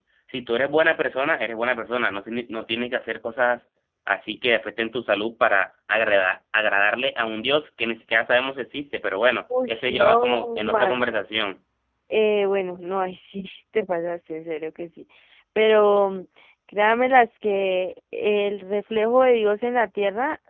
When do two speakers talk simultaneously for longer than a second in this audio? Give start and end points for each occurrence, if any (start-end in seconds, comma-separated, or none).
9.7-11.1